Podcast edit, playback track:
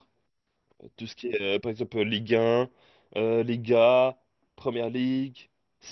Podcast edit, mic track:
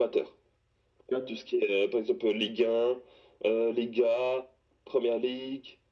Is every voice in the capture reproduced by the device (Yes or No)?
No